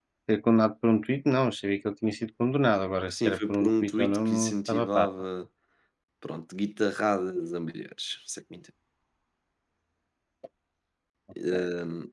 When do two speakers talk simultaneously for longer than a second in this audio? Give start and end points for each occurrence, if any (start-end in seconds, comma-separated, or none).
3.1-5.1